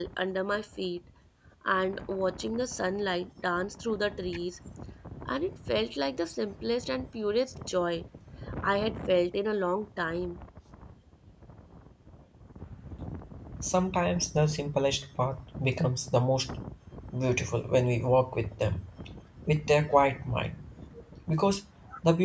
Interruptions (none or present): none